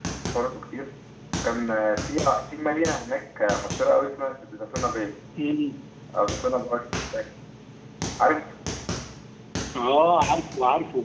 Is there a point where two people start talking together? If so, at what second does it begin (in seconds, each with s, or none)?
none